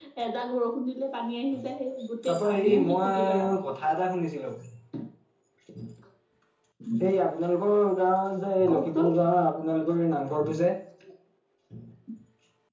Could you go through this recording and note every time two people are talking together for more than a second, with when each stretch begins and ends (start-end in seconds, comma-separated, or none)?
2.3-3.6